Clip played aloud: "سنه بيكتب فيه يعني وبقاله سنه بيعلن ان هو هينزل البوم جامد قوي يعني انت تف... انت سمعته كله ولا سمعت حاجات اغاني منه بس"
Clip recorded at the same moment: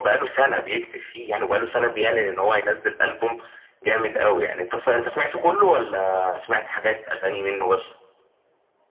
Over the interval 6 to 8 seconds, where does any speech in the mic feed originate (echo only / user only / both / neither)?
echo only